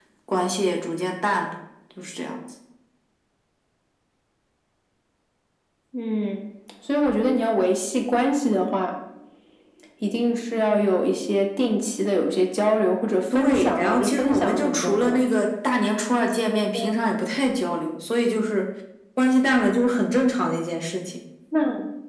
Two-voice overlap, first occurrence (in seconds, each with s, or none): 13.3 s